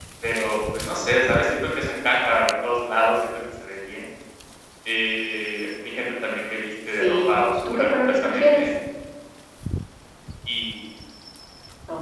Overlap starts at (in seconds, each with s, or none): 6.9 s